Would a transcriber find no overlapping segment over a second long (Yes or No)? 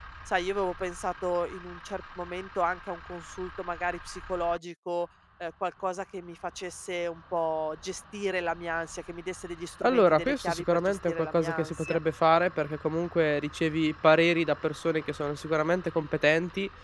No